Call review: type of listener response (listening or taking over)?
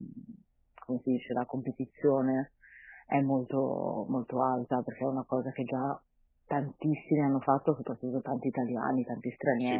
taking over